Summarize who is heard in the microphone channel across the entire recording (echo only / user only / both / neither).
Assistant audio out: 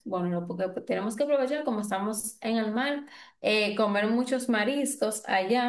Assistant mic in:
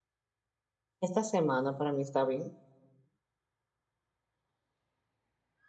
user only